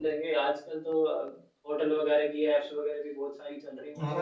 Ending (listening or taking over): taking over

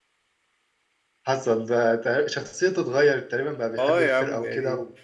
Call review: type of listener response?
taking over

